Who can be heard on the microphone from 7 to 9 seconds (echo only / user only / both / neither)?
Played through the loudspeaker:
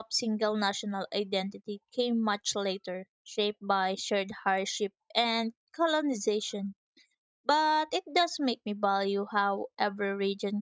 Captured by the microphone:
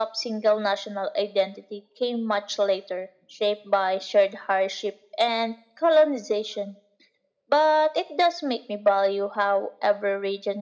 echo only